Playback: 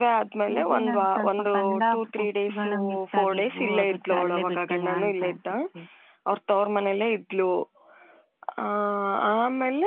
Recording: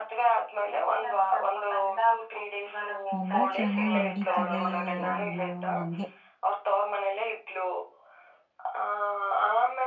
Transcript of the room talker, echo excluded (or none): ನಮ್ಮ ಚೆನ್ನಾಗ್ ನಡೀತು. ತಿದೆ ಏನೋ ಹಂಗೆ.